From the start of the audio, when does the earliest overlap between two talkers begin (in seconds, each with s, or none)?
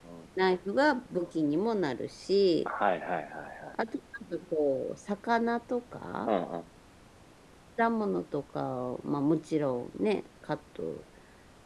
none